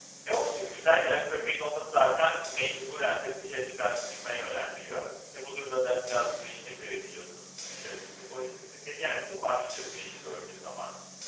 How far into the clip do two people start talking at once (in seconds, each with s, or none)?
none